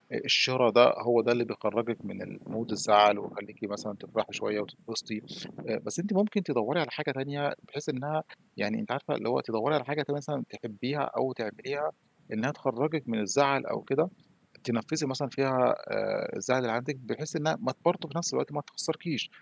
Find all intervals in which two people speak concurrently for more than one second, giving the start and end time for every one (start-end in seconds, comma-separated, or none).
none